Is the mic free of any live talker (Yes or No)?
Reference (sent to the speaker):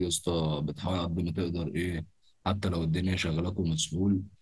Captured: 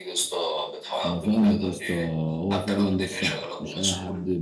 No